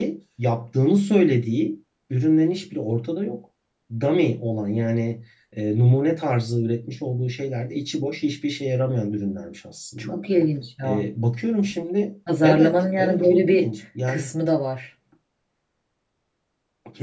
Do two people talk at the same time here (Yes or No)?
Yes